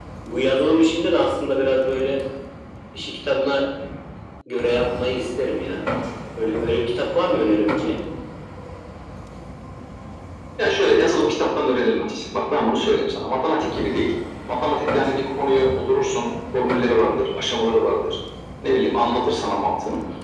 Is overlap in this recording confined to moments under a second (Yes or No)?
Yes